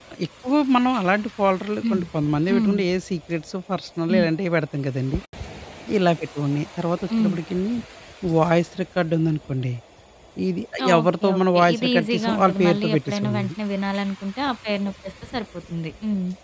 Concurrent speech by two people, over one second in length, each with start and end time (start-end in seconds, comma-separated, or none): 10.9-13.5